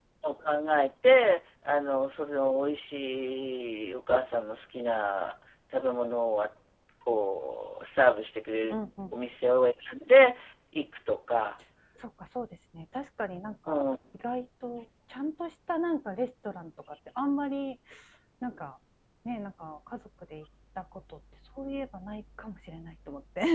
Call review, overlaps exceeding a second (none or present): none